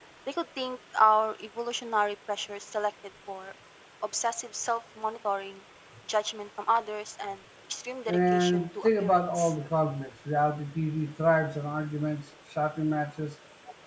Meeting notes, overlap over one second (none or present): present